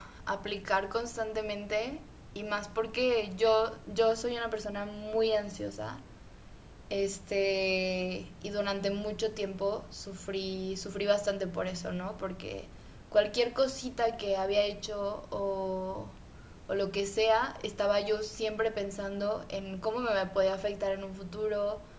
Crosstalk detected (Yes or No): No